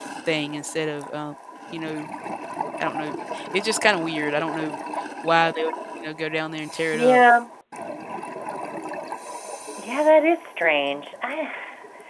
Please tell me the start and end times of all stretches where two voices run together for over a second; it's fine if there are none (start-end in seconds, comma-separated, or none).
none